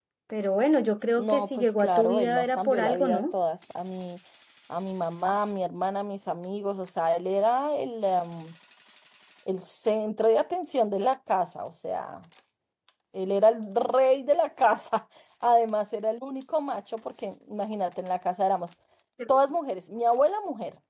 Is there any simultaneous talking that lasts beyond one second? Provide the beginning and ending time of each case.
1.2-3.3

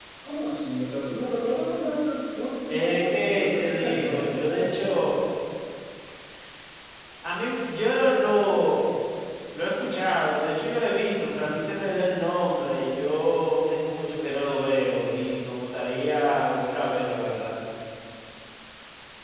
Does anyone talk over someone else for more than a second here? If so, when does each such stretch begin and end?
2.7-5.2

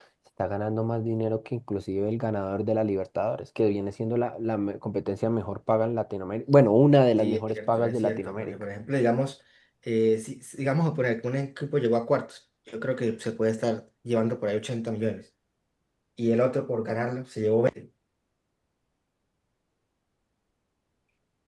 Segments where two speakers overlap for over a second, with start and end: 7.2-8.5

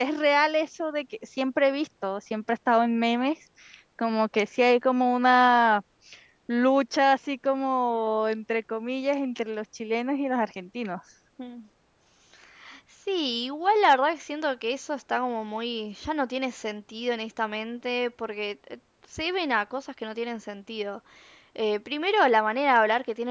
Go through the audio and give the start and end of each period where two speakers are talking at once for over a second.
none

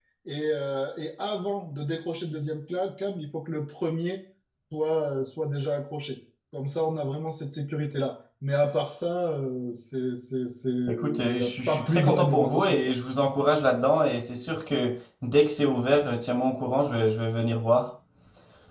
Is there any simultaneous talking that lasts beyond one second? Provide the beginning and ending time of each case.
11.0-12.9

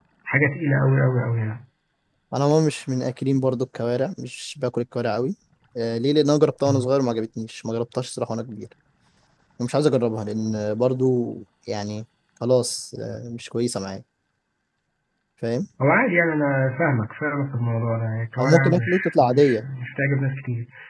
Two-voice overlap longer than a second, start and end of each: 18.4-19.6

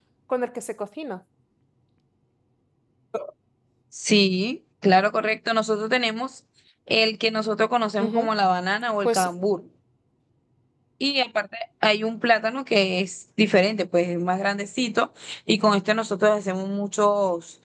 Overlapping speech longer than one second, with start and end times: none

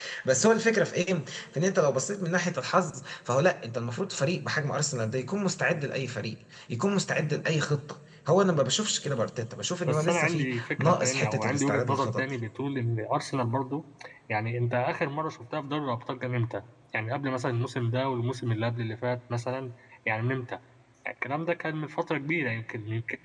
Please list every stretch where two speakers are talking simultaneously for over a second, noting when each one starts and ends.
9.9-12.3

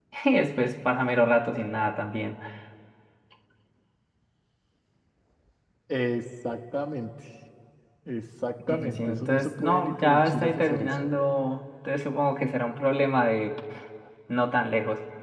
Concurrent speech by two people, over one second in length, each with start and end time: 8.7-10.9

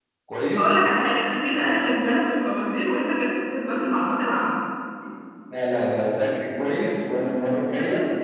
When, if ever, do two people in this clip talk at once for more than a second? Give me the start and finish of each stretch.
none

